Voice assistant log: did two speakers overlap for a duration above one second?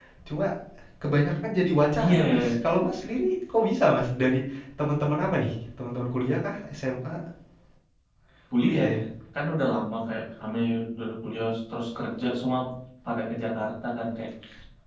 No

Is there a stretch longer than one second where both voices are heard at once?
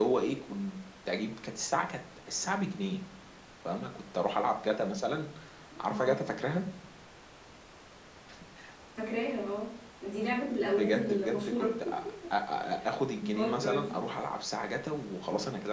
Yes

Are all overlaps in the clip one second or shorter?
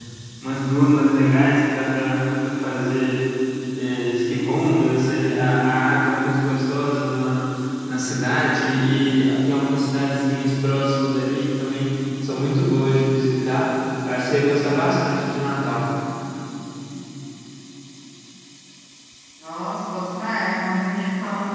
Yes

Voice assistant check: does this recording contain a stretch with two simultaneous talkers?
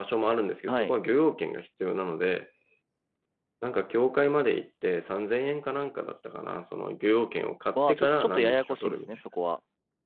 Yes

